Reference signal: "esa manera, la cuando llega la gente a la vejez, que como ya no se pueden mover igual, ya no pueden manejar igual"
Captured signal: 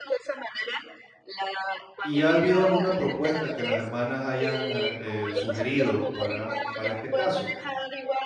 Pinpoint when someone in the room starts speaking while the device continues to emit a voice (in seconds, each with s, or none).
2.0 s